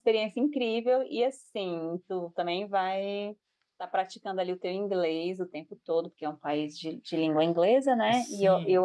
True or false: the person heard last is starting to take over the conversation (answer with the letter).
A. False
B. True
B